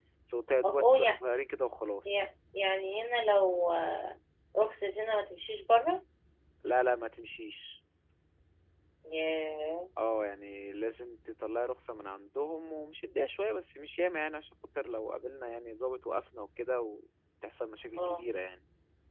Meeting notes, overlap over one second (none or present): none